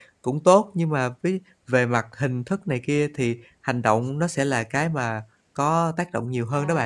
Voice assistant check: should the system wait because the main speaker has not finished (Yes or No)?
No